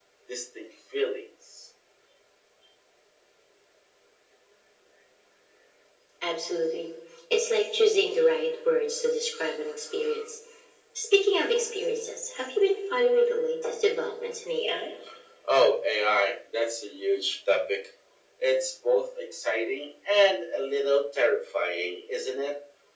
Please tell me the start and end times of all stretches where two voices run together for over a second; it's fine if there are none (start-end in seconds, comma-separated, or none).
none